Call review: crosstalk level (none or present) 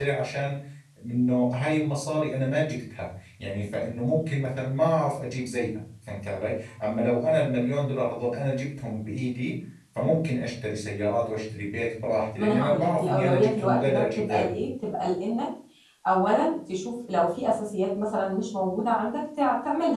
present